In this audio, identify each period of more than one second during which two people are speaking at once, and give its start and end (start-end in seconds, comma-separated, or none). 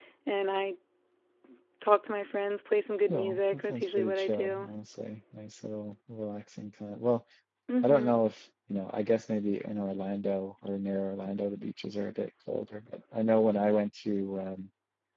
3.1-4.7